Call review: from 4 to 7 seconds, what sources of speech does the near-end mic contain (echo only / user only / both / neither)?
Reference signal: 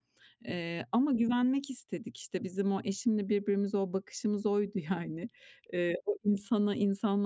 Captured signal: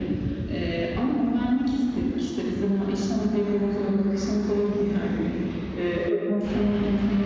echo only